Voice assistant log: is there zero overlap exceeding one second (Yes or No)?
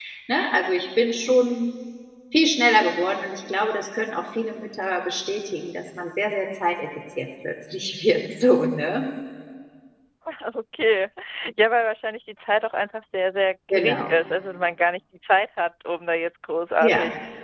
Yes